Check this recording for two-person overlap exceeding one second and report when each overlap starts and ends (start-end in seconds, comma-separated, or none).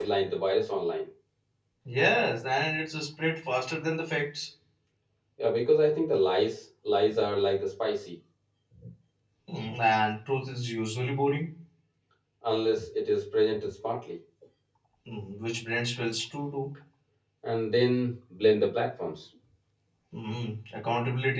none